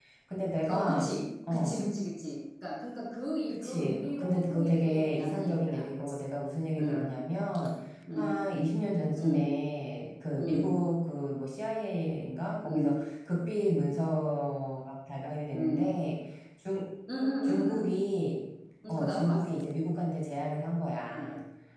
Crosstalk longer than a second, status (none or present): present